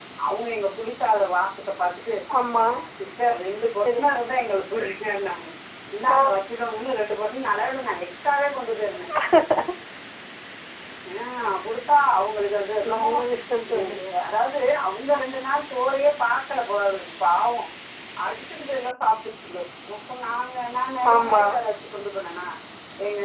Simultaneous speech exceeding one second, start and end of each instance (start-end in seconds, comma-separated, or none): none